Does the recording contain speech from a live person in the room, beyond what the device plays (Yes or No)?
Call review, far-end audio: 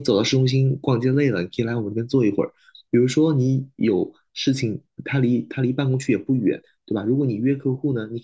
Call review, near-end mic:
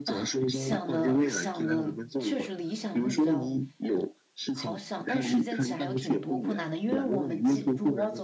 Yes